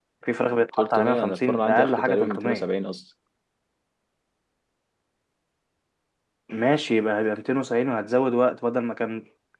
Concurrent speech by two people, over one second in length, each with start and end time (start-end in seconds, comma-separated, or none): 0.8-2.7